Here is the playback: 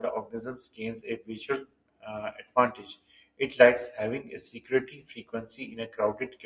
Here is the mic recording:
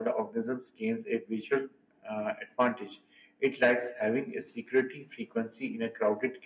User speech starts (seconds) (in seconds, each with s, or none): none